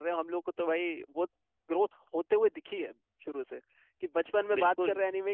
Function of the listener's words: listening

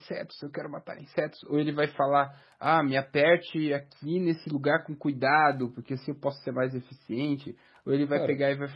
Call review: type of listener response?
listening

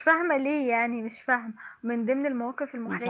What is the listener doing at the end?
listening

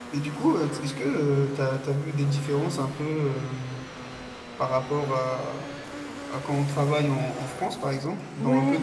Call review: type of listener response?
taking over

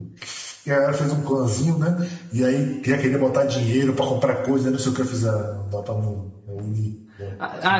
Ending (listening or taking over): taking over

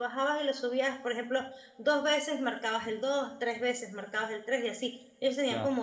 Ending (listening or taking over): listening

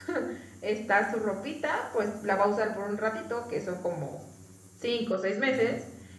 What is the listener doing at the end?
listening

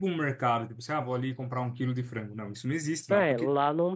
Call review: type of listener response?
taking over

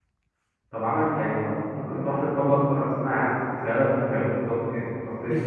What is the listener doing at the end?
listening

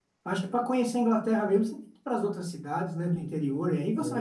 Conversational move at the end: taking over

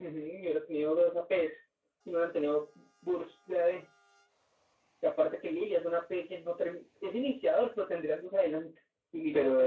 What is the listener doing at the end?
taking over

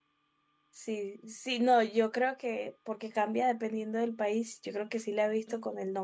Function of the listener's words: listening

